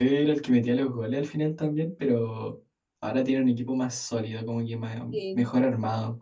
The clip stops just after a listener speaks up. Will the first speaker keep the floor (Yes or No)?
Yes